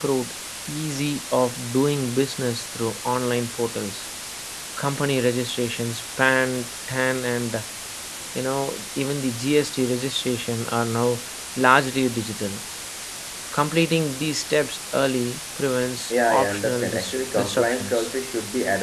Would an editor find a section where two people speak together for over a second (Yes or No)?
Yes